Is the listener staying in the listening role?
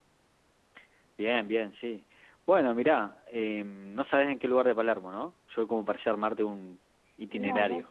No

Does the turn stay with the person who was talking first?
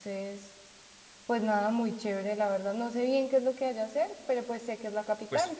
No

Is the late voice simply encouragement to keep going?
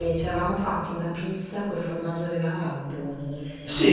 No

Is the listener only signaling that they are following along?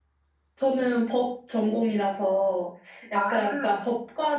Yes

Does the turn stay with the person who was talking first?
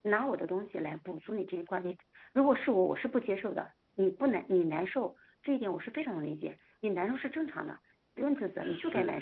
No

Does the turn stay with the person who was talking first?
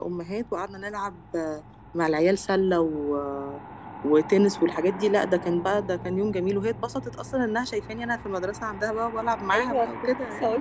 No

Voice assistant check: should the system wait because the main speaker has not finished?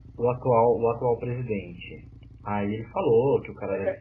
Yes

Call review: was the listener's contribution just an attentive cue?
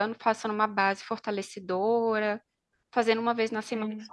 Yes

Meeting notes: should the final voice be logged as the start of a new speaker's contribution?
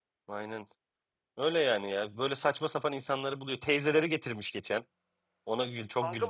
Yes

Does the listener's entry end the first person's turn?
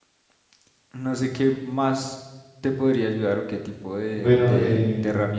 No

